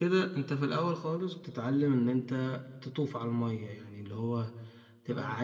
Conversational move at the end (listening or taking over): listening